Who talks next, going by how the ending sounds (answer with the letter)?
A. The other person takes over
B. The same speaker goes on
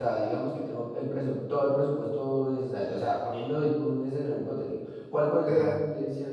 B